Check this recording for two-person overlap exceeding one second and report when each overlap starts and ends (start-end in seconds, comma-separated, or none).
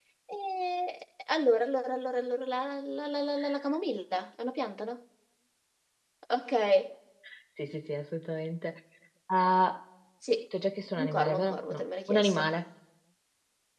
11.0-12.5